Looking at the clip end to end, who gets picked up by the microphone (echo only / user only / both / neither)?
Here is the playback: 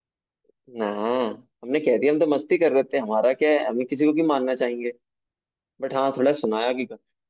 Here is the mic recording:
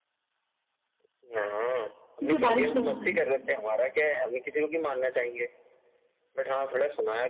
both